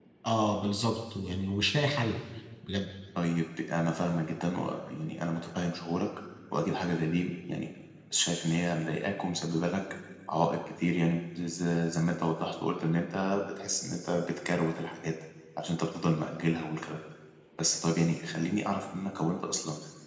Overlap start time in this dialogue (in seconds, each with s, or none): none